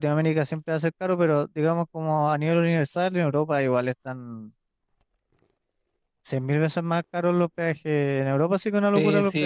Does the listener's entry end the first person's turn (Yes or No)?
Yes